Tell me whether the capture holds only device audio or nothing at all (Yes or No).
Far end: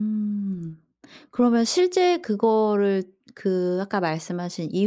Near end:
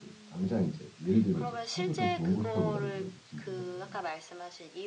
No